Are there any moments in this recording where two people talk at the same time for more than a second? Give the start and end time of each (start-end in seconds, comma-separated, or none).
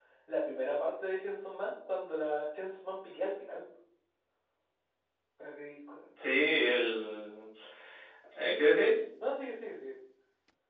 none